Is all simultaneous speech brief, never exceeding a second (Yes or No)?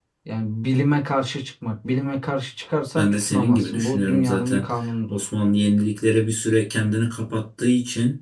No